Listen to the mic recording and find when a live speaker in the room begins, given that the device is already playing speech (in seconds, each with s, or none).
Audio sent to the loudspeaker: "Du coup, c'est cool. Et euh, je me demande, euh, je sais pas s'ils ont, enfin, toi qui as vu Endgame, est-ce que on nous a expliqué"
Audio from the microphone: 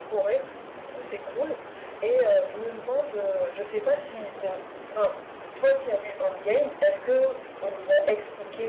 none